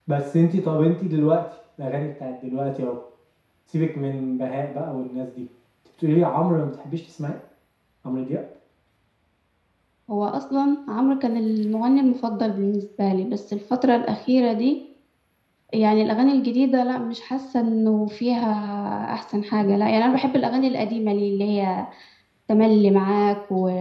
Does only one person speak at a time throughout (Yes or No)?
Yes